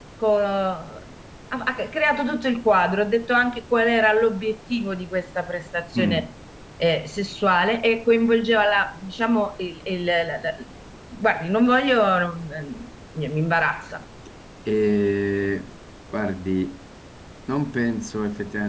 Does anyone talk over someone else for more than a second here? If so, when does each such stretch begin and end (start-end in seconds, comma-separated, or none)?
none